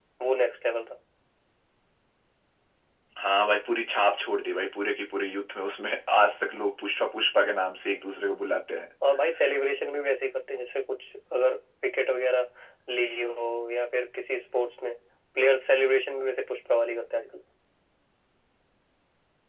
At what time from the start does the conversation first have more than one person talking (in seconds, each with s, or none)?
none